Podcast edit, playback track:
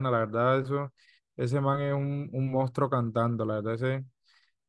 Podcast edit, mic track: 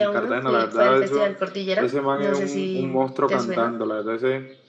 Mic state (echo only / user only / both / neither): both